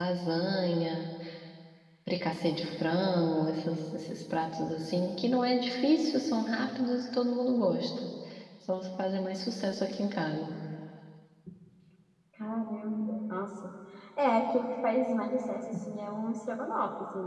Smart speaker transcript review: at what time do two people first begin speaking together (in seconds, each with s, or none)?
none